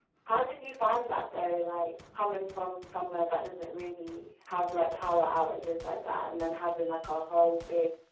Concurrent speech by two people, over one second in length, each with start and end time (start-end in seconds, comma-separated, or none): none